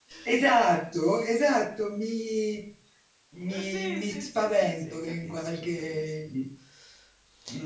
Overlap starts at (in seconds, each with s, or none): 3.7 s